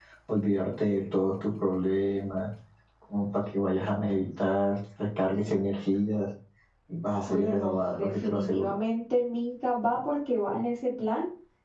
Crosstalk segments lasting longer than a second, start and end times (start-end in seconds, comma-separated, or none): 7.3-8.7